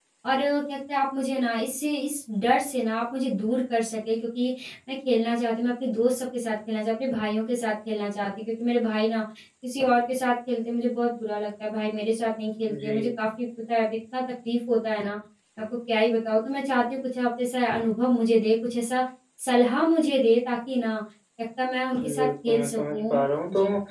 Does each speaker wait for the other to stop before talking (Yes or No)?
No